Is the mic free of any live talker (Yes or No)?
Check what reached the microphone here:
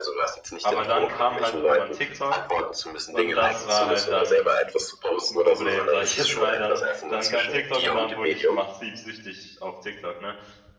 No